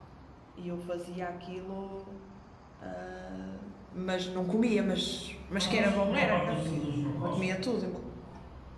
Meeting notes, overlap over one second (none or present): present